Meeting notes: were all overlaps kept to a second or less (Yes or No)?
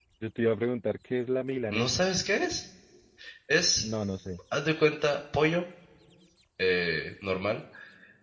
Yes